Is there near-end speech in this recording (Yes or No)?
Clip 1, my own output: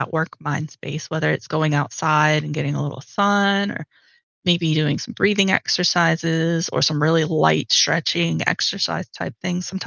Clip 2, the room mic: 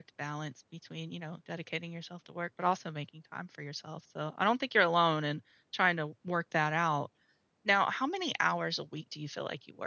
Yes